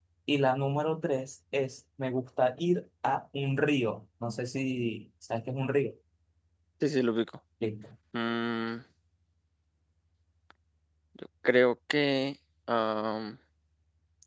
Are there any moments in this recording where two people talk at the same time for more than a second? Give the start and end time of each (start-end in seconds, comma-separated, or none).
none